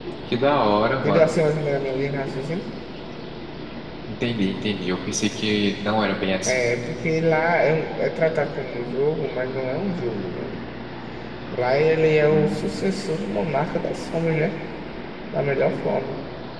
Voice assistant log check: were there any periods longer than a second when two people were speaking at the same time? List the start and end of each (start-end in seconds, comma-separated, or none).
none